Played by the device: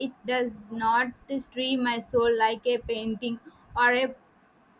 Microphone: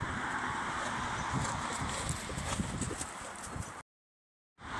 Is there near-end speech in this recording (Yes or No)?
No